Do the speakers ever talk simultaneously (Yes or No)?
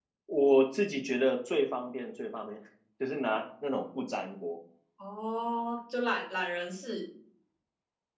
No